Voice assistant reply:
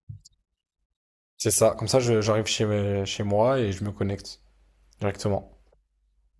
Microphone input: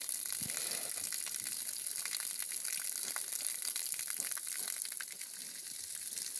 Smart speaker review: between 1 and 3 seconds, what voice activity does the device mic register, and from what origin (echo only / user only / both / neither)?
neither